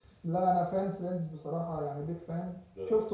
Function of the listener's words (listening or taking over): listening